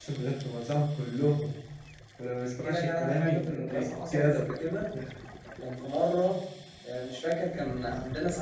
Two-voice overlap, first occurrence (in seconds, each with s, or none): 2.6 s